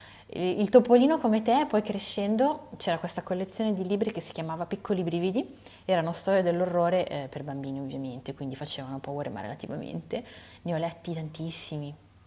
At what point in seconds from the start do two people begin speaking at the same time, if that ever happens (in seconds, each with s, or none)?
none